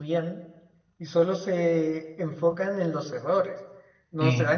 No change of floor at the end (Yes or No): Yes